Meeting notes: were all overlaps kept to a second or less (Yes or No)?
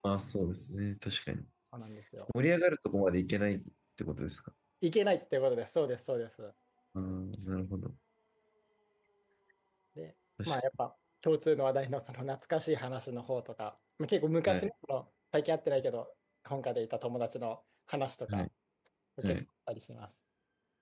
Yes